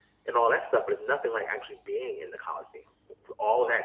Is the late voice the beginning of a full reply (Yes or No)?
No